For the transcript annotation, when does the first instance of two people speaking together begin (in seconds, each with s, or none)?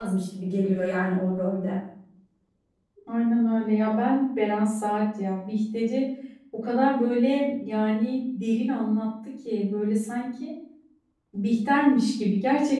none